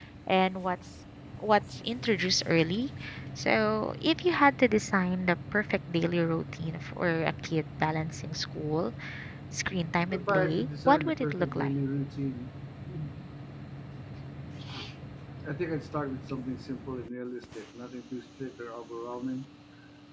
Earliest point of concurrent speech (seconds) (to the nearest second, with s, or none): 10 s